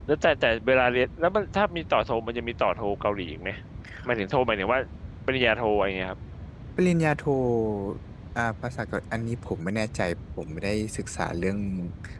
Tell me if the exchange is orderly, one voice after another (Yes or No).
Yes